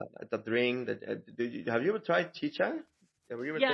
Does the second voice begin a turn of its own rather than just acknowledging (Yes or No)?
Yes